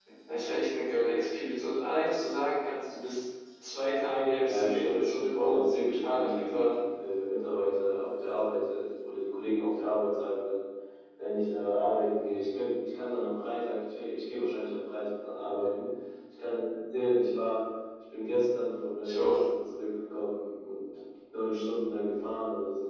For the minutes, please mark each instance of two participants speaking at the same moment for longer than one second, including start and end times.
4.5-6.7

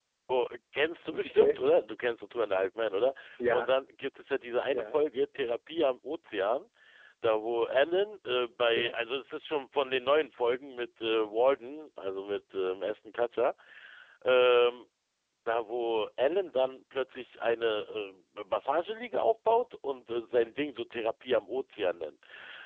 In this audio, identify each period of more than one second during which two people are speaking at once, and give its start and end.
none

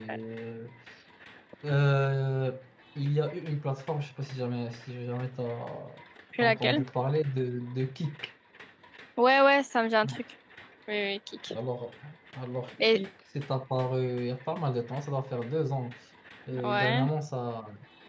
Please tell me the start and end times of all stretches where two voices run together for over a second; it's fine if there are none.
none

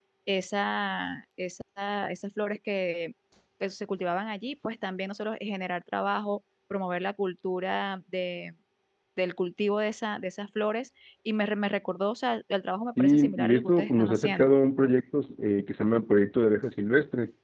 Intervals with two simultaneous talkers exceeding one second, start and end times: 13.0-14.5

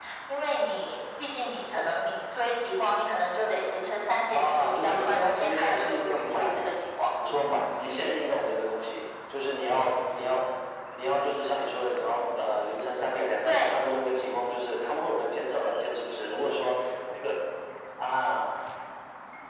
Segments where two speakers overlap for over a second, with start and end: 4.3-6.5

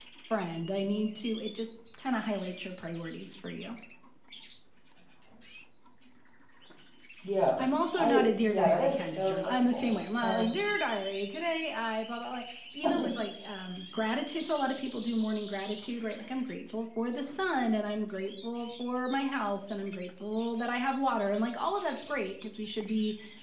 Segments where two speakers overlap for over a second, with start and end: 7.6-10.5

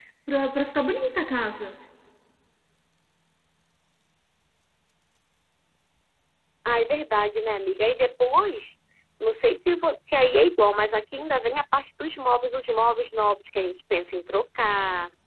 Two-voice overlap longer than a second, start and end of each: none

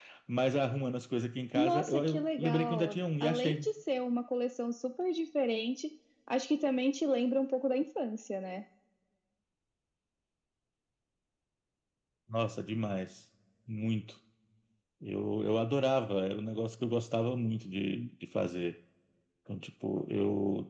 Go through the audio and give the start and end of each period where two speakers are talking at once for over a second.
1.6-3.7

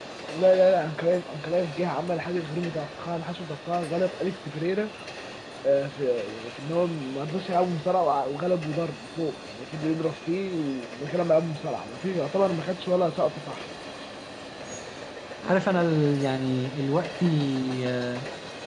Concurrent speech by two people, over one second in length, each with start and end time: none

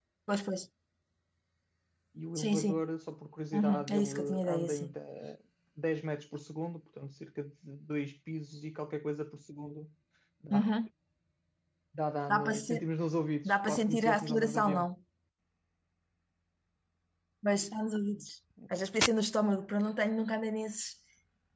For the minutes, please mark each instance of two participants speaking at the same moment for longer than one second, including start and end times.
3.5-4.9, 13.5-14.9

